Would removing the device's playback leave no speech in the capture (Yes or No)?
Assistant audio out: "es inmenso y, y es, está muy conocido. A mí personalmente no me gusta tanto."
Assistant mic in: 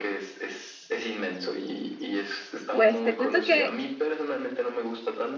No